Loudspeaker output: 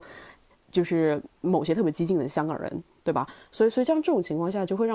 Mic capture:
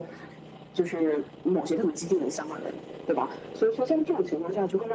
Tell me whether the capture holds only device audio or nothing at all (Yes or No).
Yes